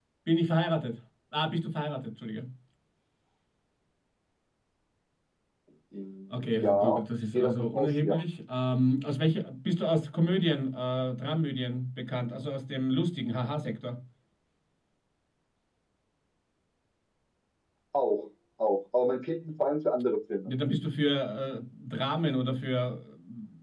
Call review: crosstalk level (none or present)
present